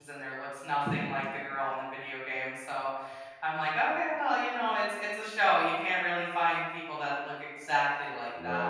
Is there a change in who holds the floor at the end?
Yes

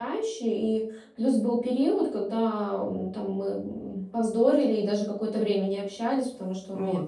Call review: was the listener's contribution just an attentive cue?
Yes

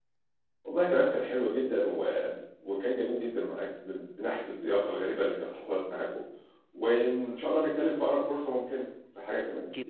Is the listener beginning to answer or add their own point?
Yes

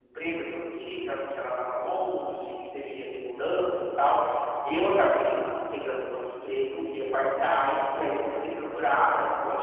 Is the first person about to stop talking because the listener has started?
No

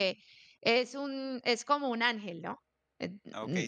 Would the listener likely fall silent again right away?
No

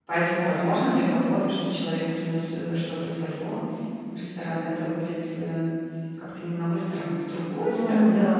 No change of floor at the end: No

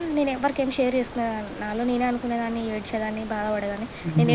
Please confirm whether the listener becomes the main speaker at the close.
No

